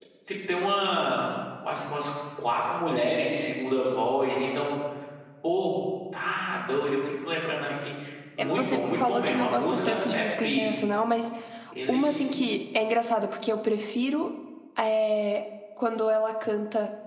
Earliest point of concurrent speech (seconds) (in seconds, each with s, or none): 8.4 s